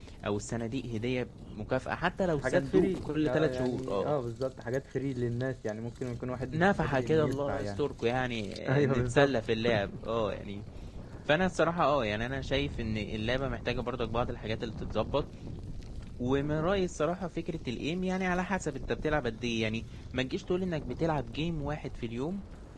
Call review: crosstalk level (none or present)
present